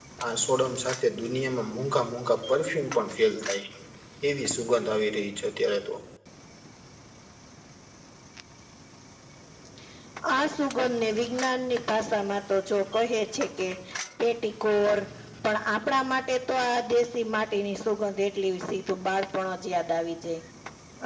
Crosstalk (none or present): none